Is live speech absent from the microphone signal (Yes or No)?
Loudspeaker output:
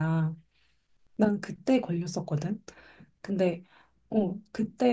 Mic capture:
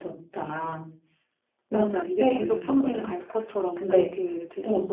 No